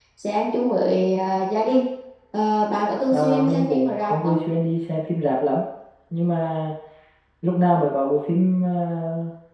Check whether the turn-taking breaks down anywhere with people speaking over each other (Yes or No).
Yes